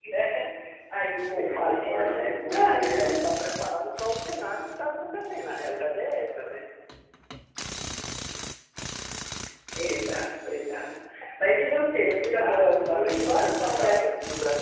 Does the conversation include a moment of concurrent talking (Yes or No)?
Yes